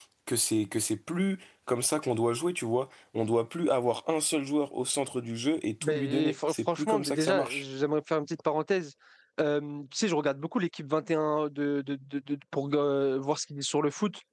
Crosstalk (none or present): present